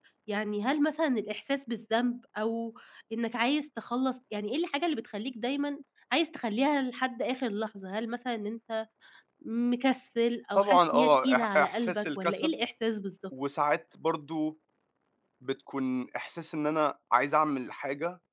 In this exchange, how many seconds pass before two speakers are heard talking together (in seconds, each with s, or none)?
10.6 s